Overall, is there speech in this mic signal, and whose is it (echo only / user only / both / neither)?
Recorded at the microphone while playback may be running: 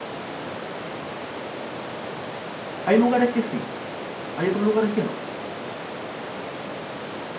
user only